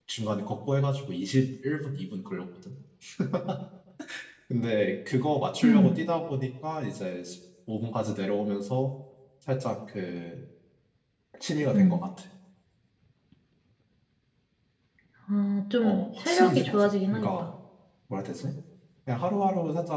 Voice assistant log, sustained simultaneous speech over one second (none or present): present